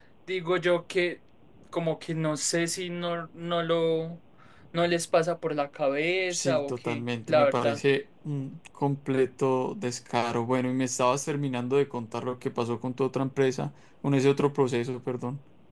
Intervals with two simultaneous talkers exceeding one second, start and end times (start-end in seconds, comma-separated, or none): 6.3-7.8